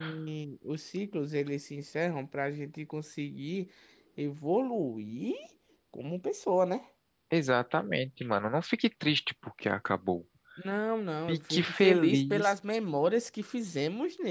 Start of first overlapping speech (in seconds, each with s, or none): 11.3 s